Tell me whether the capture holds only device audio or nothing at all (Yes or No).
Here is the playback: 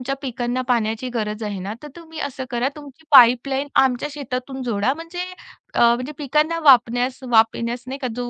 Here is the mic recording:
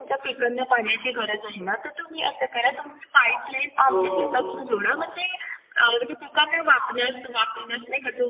No